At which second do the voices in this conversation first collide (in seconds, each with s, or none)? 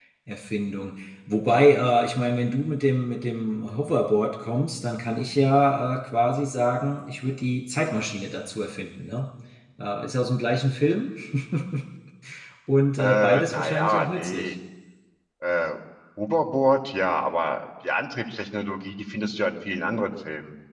13.0 s